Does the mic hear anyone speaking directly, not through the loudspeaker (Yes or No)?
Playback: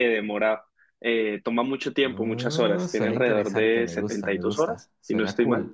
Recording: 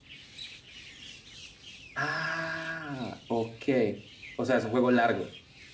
Yes